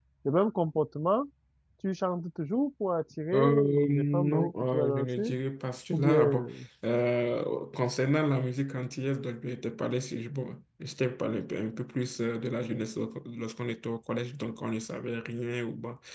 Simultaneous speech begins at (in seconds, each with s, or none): 3.3 s